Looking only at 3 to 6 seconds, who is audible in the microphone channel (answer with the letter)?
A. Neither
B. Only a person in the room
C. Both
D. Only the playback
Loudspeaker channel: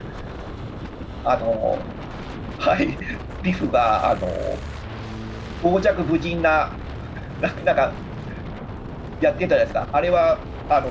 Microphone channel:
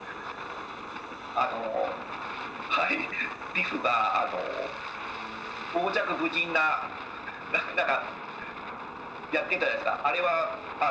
D